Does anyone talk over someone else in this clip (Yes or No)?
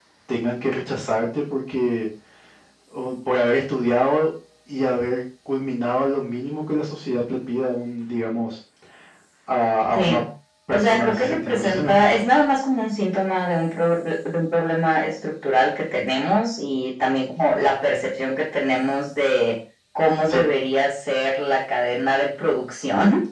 Yes